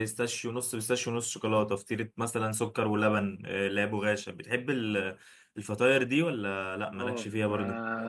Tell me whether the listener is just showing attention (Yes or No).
No